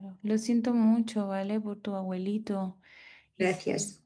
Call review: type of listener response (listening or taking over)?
listening